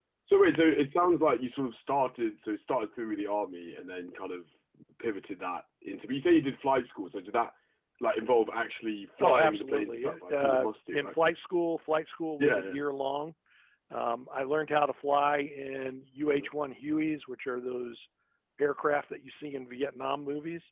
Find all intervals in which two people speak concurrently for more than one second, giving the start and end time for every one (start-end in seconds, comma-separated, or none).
9.2-11.1